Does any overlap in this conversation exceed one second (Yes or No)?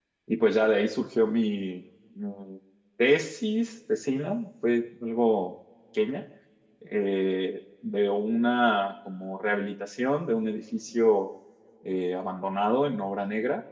No